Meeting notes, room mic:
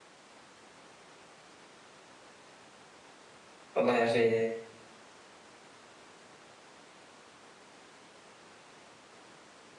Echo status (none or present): none